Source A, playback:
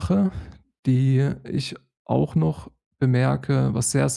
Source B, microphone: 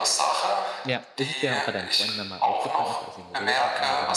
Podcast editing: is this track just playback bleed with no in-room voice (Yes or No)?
No